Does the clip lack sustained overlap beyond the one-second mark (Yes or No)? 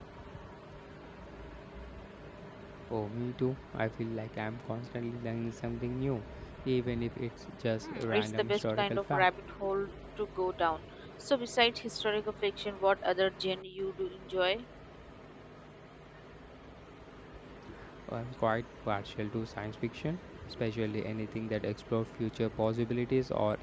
No